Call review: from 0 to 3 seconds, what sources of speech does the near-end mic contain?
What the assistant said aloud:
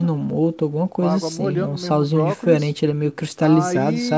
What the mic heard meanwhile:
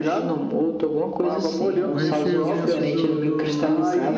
both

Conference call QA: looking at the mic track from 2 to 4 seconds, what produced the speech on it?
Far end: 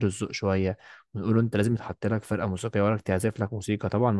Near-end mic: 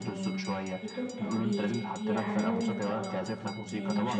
both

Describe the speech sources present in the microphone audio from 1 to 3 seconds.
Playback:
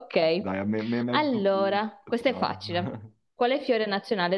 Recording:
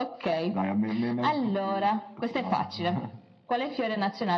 echo only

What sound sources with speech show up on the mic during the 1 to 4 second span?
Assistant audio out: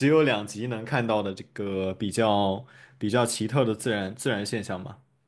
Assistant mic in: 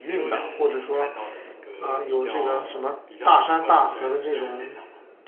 both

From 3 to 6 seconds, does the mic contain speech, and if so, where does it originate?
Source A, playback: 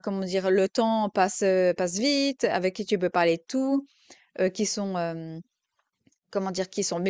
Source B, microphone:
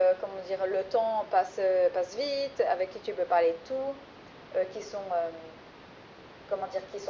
echo only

